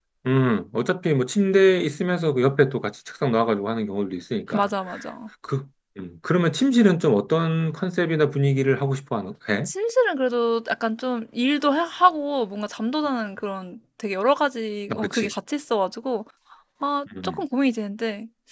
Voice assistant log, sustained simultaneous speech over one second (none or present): none